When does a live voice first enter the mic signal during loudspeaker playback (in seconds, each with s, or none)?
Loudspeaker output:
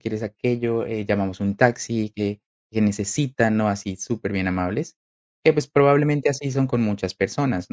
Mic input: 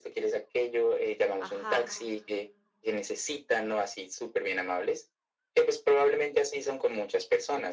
1.4 s